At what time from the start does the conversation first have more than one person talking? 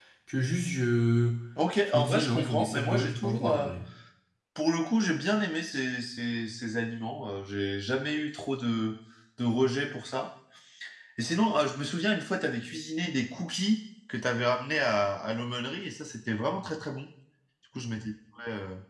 1.9 s

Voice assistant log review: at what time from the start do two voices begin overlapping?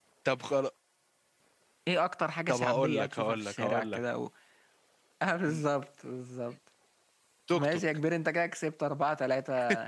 2.5 s

